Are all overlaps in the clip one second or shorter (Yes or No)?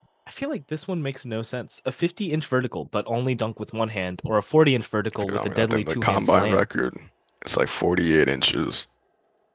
No